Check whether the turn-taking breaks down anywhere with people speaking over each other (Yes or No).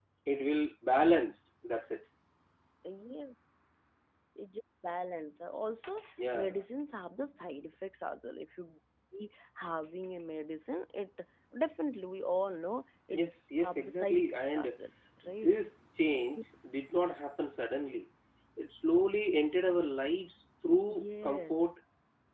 Yes